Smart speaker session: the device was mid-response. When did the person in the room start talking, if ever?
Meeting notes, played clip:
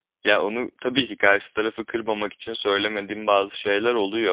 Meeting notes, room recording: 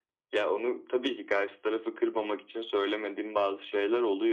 none

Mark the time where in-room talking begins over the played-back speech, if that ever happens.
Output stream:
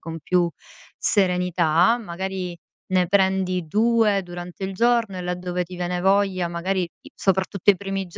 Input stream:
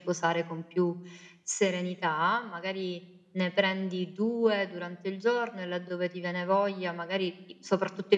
none

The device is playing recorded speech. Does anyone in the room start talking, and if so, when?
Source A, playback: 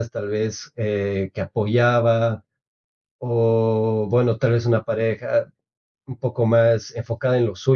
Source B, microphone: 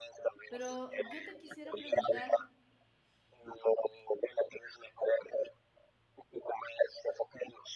0.5 s

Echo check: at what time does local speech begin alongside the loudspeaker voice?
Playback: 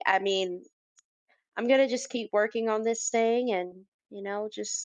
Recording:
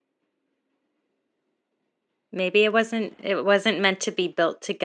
2.3 s

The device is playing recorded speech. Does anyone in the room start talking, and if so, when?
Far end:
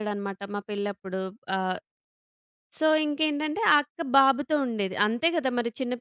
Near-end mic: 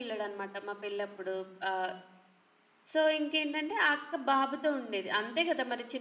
none

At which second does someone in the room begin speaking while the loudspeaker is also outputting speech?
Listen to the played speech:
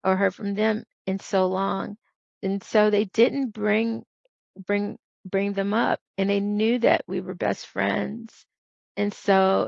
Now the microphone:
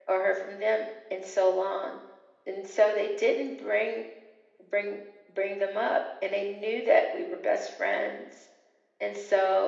none

